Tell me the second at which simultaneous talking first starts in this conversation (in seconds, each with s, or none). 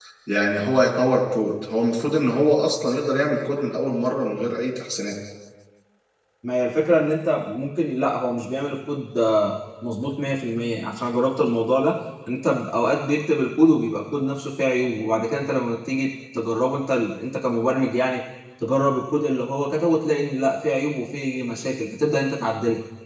none